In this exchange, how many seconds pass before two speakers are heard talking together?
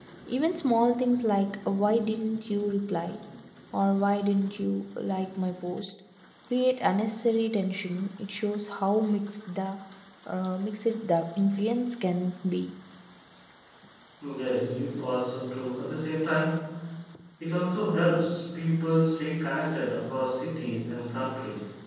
none

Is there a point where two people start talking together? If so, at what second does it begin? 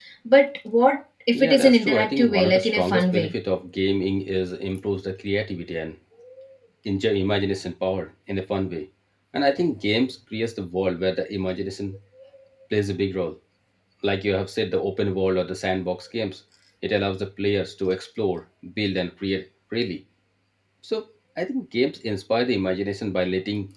1.4 s

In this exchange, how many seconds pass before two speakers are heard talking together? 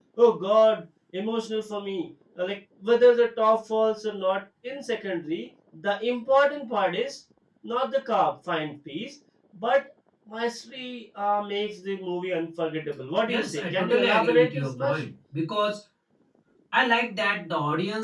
13.3 s

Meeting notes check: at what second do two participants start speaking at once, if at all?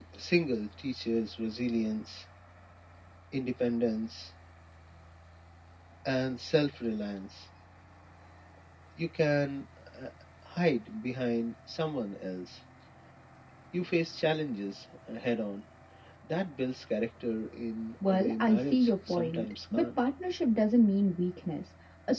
18.0 s

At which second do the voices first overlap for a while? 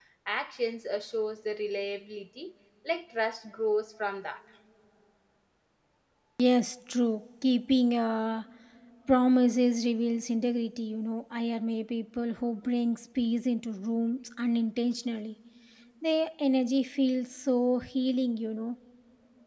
none

